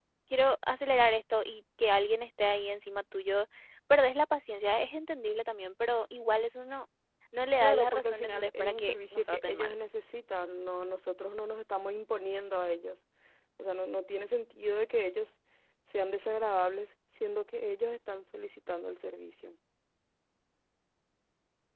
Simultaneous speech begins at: 7.6 s

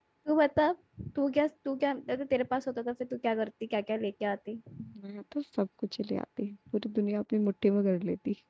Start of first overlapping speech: none

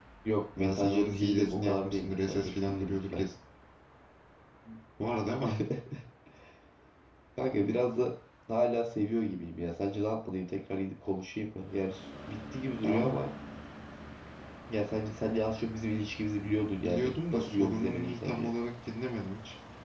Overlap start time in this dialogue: 0.6 s

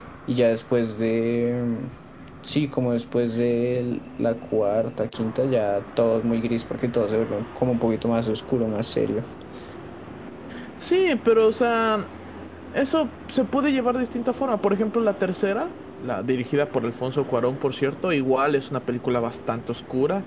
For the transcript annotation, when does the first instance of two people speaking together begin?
none

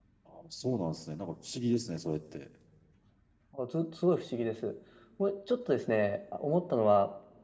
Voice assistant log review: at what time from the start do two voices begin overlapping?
none

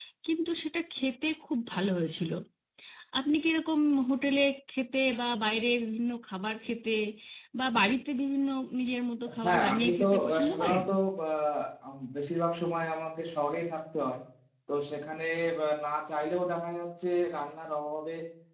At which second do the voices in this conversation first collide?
9.3 s

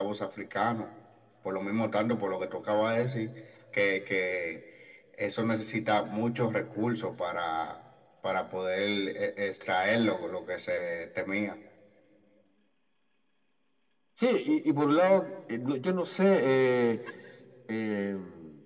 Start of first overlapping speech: none

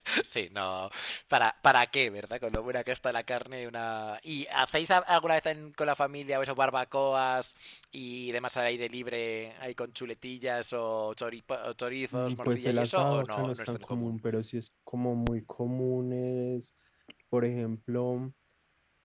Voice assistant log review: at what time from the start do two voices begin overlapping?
12.1 s

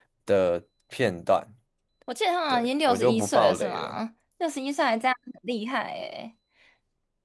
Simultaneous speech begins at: 2.5 s

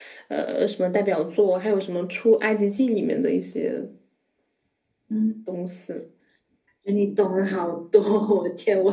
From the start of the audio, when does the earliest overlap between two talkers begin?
none

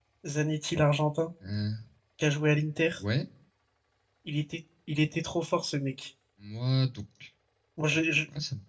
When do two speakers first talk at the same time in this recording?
none

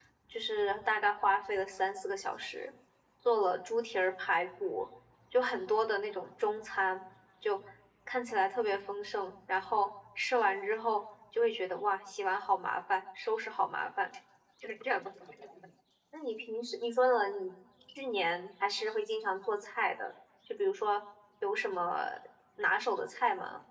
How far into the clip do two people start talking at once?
none

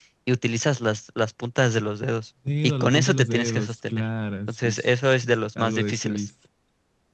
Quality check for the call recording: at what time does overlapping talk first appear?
2.5 s

